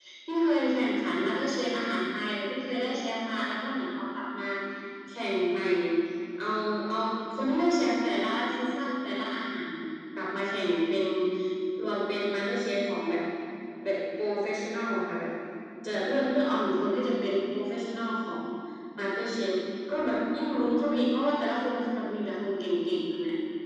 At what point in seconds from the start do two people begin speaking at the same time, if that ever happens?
none

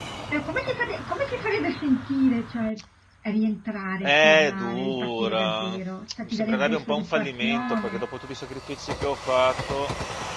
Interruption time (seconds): 4.0 s

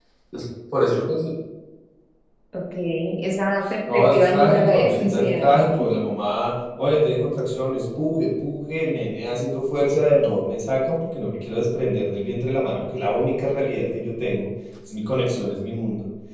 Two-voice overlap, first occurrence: 3.9 s

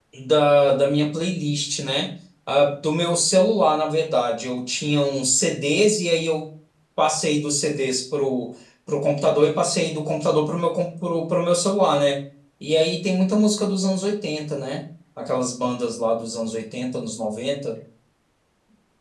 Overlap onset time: none

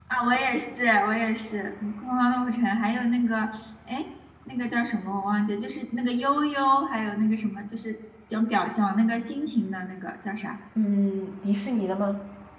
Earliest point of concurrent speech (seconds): none

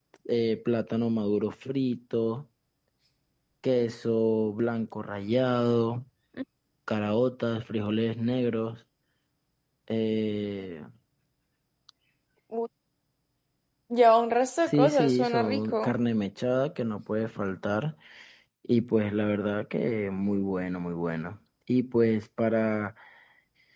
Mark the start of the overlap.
14.7 s

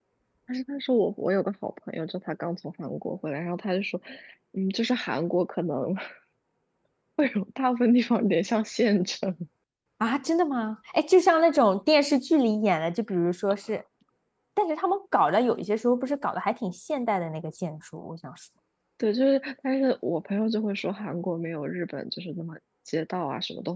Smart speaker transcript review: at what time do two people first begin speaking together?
none

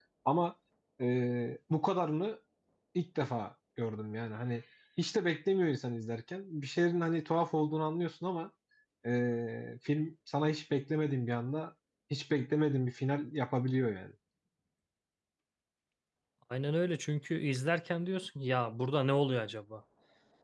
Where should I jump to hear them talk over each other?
none

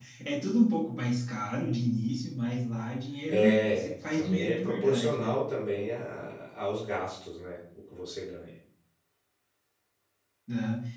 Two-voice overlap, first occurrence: 3.3 s

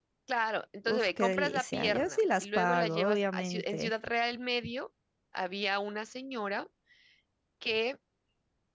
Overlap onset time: 0.9 s

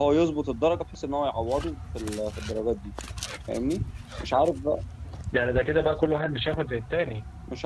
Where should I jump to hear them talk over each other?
none

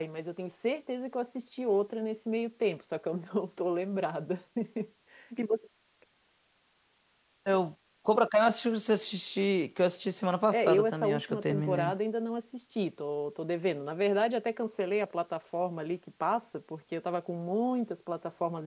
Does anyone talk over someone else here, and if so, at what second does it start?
10.5 s

